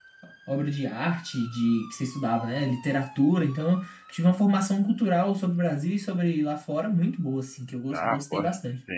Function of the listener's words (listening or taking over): taking over